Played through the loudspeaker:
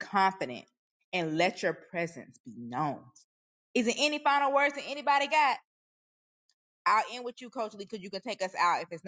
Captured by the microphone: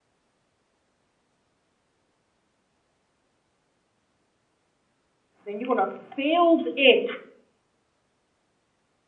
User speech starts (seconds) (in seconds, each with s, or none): 5.5 s